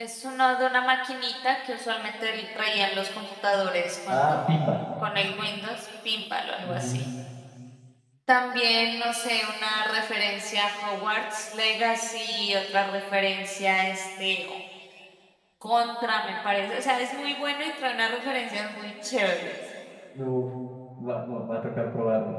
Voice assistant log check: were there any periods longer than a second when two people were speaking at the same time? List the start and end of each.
none

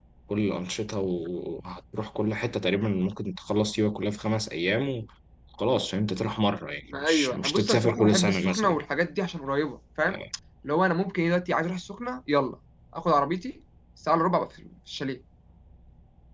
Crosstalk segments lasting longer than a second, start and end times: 6.9-8.8

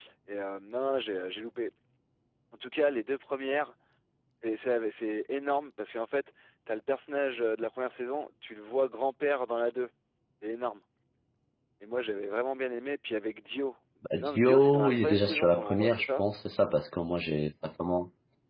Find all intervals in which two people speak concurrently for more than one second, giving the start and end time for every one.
14.2-16.2

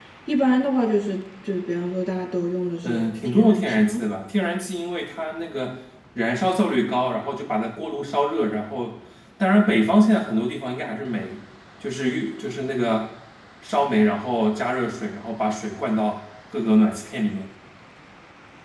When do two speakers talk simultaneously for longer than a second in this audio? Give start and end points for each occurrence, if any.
2.8-4.0

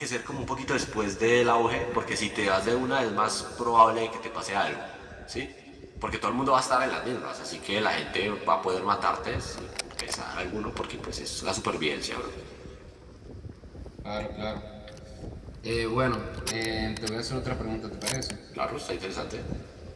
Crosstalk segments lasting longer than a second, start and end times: none

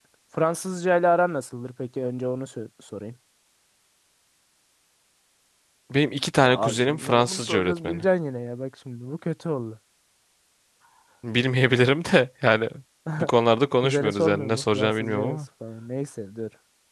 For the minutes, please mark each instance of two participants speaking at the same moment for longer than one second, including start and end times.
6.4-8.0, 13.8-15.4

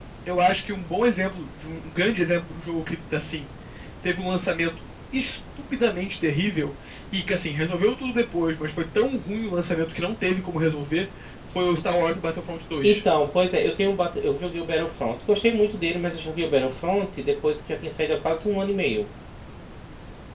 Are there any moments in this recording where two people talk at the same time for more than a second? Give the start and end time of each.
none

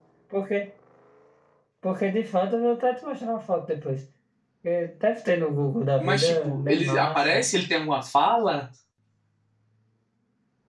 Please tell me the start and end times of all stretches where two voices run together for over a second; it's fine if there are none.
6.0-7.5

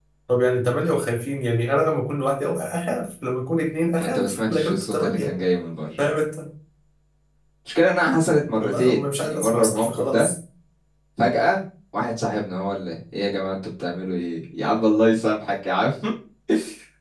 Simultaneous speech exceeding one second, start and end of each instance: 4.0-5.3, 8.6-10.3

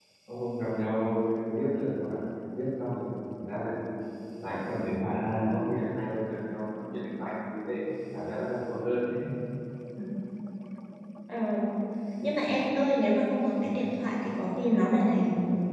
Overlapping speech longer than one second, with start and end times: none

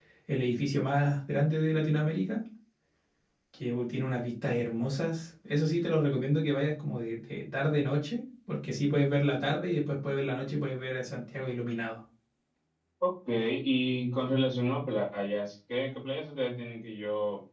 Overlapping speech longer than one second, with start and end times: none

